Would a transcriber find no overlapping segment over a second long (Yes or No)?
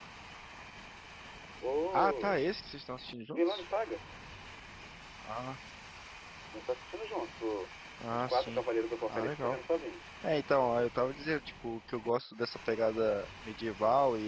Yes